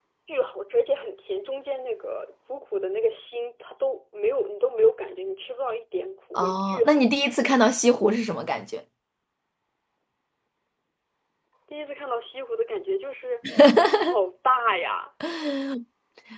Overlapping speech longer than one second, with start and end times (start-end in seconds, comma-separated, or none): 6.3-7.6